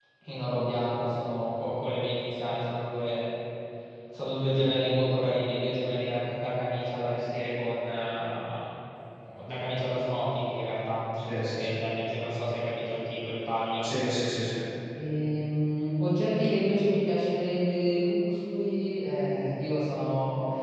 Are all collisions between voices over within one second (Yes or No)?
Yes